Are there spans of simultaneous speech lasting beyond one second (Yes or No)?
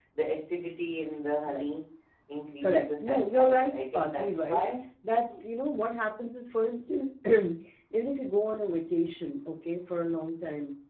Yes